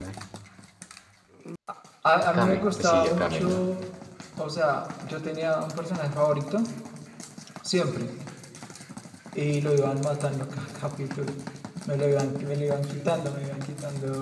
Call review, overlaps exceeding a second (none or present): present